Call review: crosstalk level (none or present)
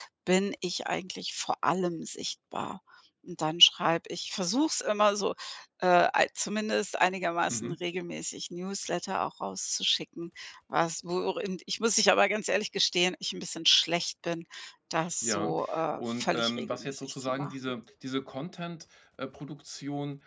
present